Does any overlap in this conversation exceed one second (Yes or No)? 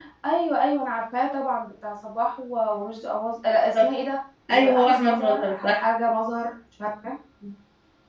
Yes